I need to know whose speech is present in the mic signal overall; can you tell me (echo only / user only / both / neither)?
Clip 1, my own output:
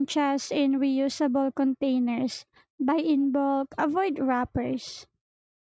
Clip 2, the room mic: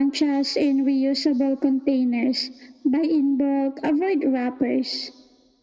echo only